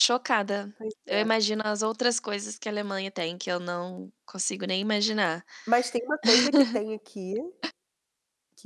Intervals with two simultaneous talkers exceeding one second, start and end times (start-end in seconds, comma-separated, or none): none